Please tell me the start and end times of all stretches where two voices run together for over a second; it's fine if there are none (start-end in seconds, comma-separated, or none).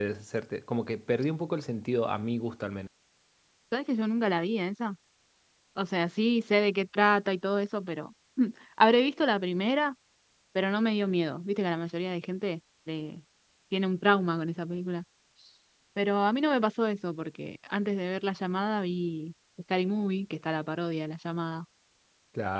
none